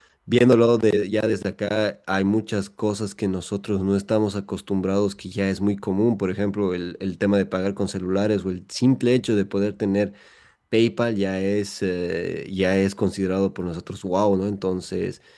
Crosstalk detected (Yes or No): No